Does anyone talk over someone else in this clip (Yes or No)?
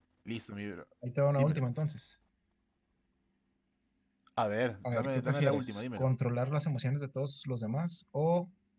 Yes